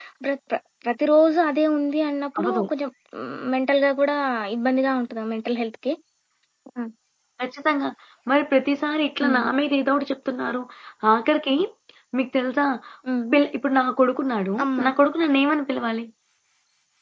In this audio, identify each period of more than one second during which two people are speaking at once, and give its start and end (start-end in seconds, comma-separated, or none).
none